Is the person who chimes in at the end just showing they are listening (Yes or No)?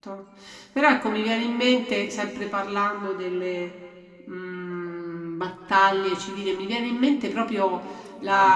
Yes